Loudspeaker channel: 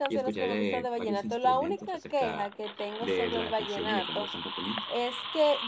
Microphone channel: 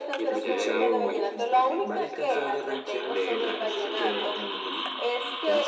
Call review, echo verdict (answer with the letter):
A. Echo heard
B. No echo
A